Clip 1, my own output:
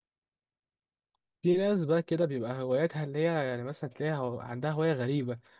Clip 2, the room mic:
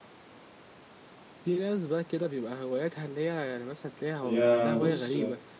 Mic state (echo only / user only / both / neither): both